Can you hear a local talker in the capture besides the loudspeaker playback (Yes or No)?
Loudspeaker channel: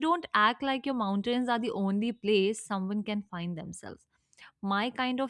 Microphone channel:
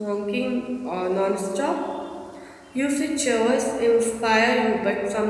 Yes